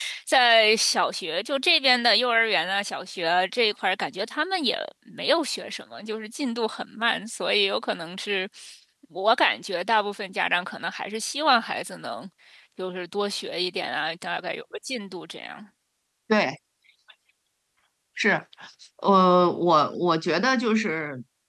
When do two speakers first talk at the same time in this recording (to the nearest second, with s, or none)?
none